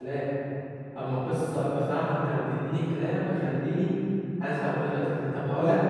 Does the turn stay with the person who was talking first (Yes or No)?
Yes